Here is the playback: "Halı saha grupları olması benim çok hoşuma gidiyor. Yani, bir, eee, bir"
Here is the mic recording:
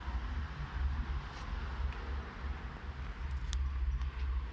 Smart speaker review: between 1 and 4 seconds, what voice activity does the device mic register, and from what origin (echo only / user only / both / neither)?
neither